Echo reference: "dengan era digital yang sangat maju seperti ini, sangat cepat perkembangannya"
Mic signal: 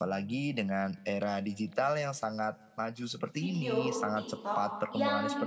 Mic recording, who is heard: both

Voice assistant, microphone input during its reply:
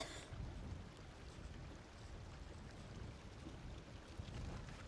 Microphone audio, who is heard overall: neither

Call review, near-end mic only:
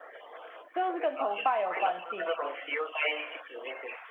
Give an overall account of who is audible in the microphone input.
both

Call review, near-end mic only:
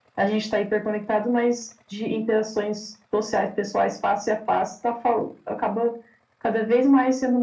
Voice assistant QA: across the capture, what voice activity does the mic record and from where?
echo only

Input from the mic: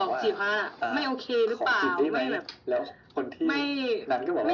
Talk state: echo only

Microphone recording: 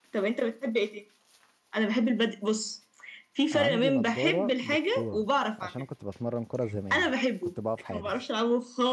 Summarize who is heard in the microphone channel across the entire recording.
both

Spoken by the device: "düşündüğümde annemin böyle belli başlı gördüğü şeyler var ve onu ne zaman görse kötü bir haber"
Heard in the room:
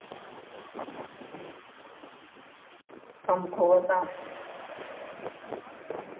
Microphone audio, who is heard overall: user only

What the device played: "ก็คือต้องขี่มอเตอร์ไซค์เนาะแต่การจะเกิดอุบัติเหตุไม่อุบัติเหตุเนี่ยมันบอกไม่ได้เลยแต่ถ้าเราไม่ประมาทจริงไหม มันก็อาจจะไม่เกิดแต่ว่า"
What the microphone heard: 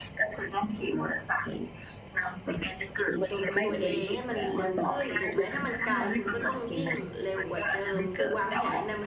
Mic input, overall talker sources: both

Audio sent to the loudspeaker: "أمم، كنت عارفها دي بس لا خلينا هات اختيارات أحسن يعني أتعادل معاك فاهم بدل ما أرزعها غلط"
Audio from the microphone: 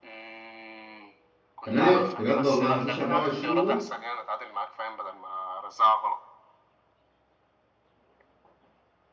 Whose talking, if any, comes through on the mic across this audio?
both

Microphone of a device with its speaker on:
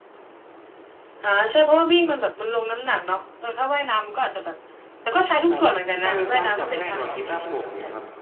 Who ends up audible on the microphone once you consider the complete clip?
both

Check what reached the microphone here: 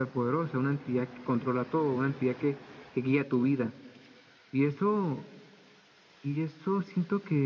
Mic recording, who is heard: echo only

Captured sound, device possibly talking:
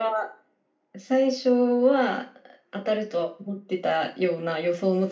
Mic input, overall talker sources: echo only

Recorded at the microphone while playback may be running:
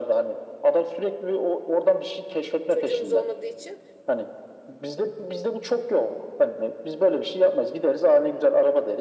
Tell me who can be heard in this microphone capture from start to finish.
both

